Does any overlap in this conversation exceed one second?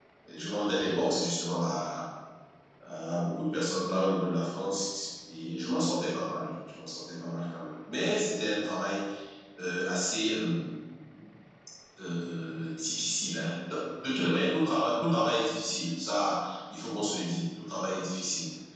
No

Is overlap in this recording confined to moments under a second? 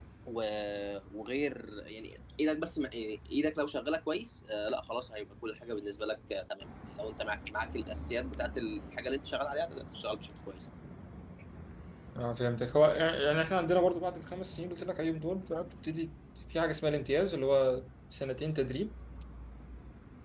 Yes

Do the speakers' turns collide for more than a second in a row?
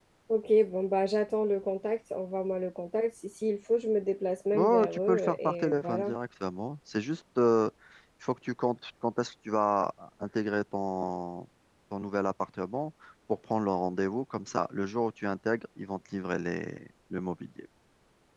Yes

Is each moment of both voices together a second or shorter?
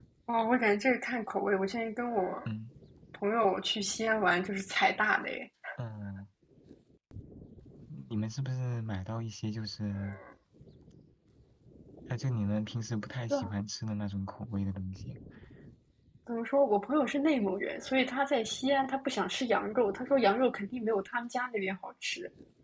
Yes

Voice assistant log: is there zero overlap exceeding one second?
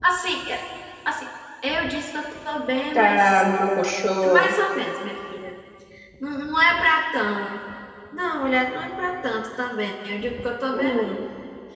Yes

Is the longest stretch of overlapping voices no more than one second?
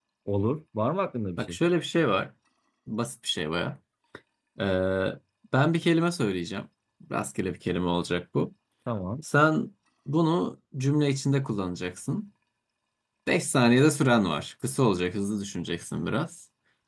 Yes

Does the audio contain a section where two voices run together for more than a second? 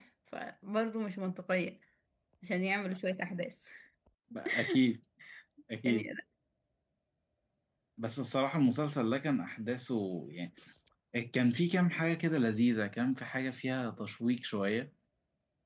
No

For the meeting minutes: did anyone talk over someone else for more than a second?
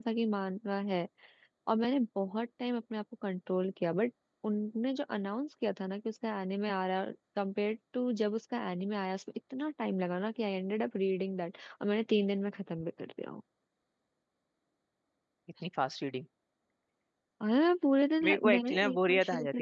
Yes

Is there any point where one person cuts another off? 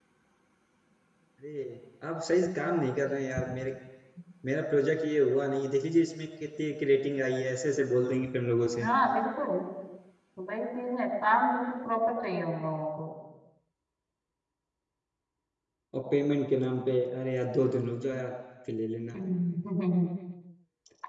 No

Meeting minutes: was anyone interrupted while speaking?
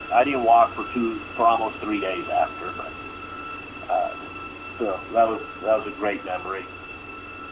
No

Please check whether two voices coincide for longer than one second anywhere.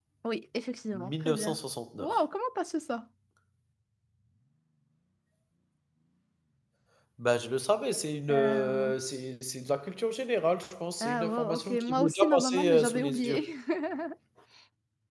Yes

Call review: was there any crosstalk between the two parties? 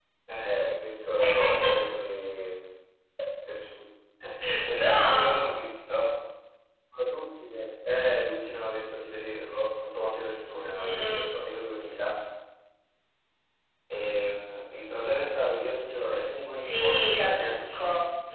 Yes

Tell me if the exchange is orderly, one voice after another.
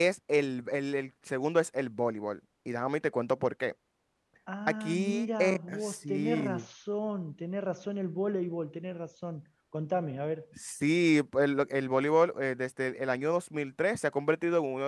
No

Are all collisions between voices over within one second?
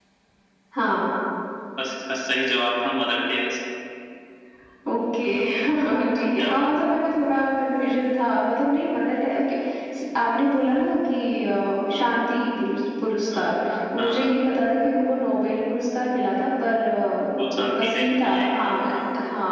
No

